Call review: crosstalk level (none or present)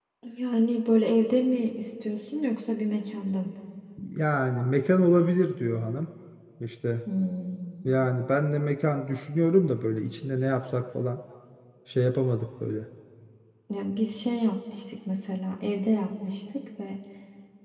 none